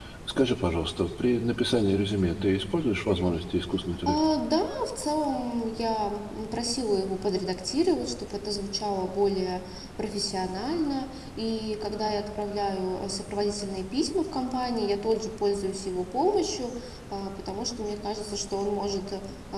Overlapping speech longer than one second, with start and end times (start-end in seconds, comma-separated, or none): none